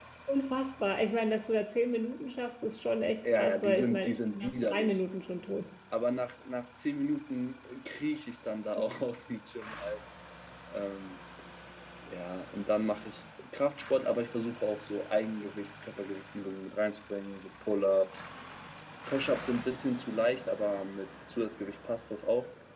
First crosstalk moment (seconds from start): 3 s

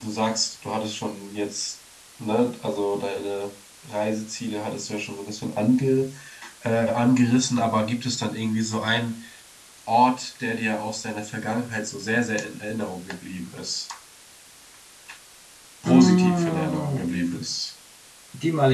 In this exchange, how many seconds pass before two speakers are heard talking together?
16 s

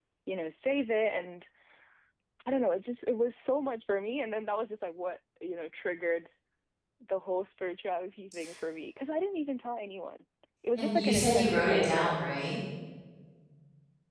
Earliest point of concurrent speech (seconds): 11 s

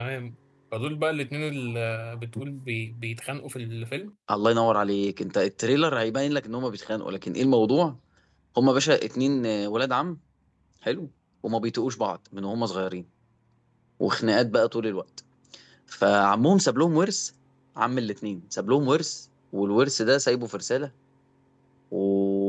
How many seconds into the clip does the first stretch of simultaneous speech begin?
none

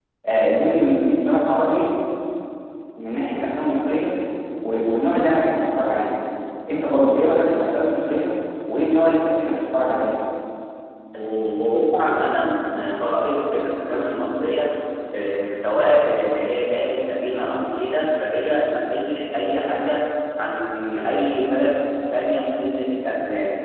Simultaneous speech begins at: none

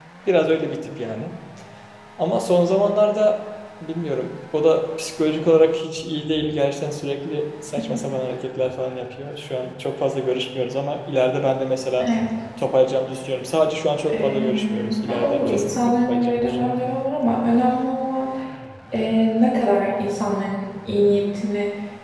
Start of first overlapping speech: 14 s

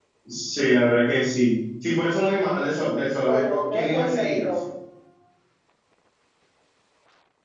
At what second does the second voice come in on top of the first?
3 s

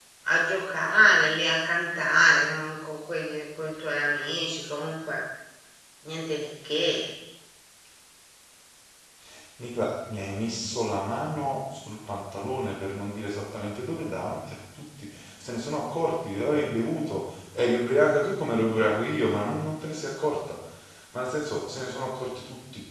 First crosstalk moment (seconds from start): none

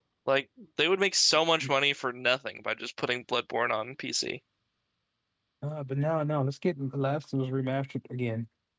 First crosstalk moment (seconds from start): none

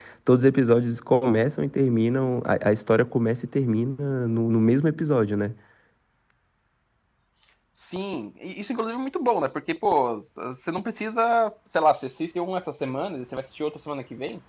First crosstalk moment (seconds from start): none

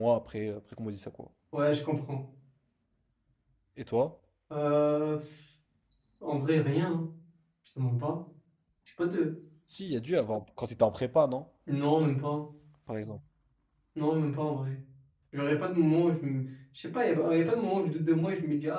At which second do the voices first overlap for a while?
none

